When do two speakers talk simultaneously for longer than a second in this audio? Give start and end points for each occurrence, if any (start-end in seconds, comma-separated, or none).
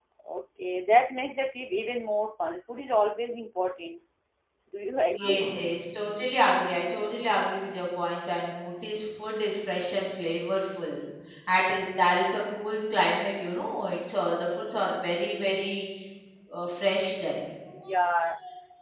none